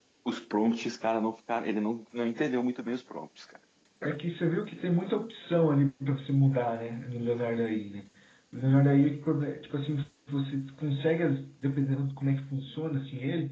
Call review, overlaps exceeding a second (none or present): none